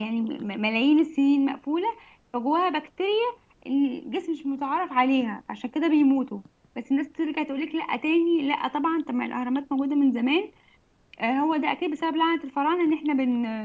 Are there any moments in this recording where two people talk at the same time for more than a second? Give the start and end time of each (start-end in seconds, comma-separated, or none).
none